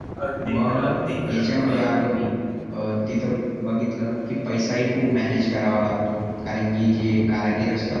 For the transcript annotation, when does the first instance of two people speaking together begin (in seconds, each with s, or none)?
0.5 s